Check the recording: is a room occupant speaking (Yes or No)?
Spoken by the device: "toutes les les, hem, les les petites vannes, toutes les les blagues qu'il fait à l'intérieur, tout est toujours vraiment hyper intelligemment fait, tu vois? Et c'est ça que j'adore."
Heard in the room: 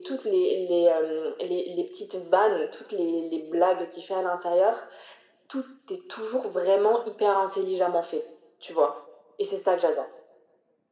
No